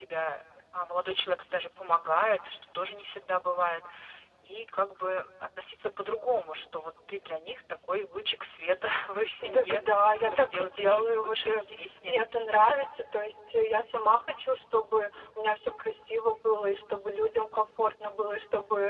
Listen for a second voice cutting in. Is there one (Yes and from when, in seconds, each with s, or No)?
Yes, from 9.4 s